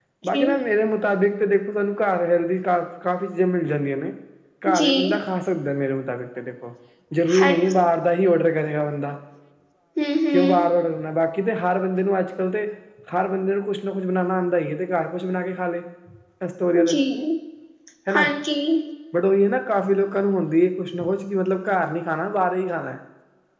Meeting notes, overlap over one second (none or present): none